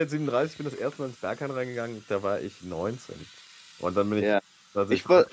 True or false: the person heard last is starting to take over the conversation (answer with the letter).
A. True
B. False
A